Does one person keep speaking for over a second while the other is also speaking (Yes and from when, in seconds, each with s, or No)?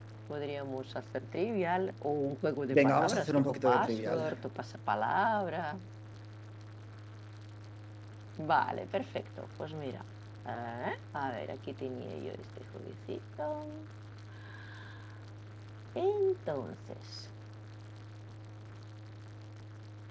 Yes, from 2.7 s